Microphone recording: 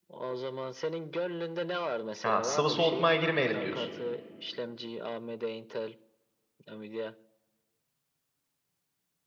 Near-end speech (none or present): present